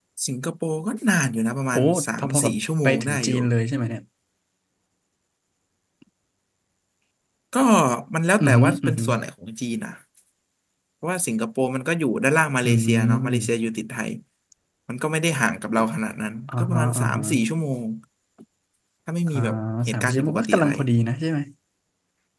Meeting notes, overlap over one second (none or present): present